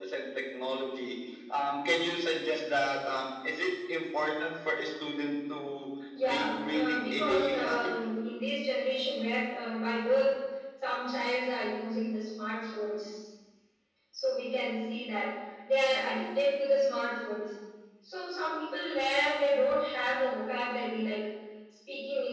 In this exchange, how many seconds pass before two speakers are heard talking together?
6.1 s

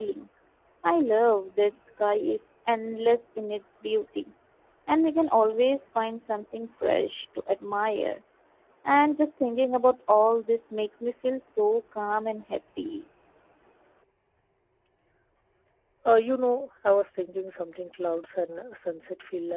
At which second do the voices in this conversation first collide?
none

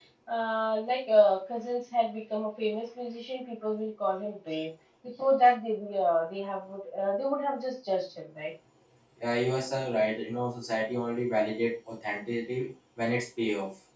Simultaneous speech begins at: none

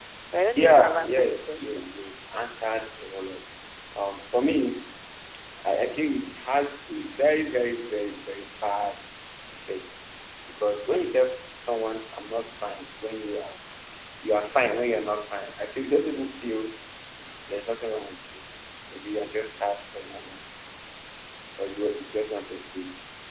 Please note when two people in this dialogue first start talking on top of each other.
0.6 s

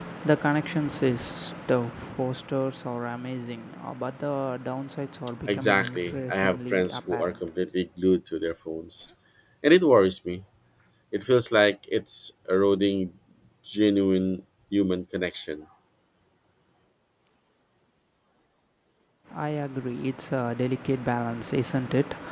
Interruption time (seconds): 5.5 s

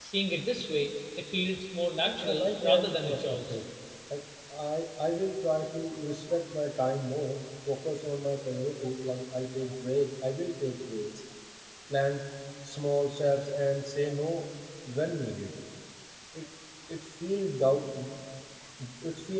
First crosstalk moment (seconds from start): 2.0 s

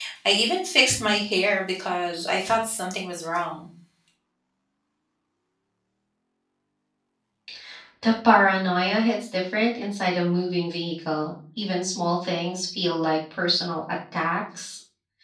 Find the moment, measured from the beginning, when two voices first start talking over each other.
none

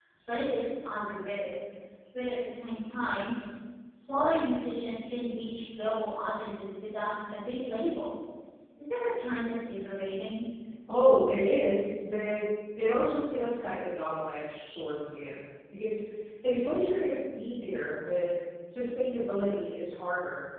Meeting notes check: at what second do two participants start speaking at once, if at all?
none

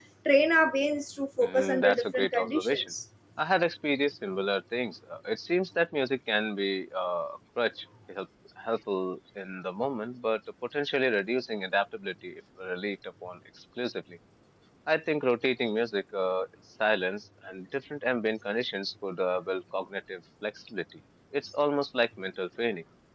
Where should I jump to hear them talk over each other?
1.4 s

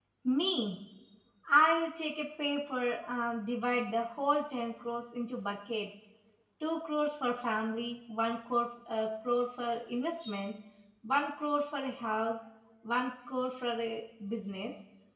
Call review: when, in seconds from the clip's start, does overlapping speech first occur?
none

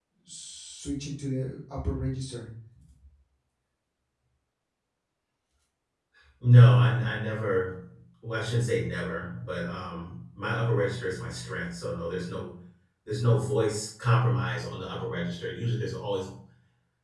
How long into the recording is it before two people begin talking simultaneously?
none

